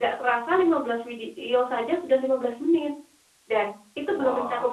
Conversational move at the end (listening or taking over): listening